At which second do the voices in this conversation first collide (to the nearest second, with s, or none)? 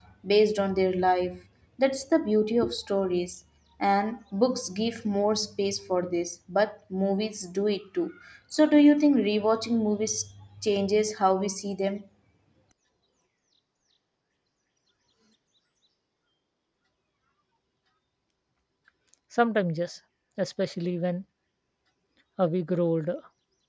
none